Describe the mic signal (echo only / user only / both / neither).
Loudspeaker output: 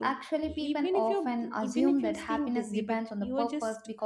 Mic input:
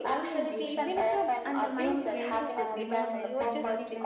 both